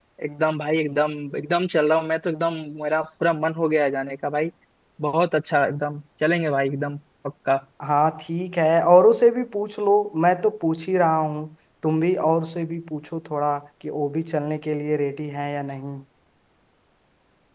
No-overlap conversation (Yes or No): Yes